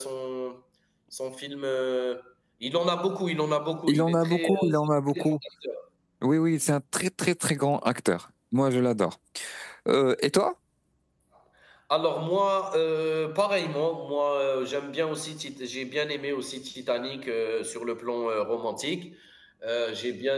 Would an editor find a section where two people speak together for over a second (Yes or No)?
Yes